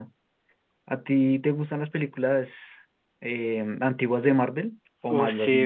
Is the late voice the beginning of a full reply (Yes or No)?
Yes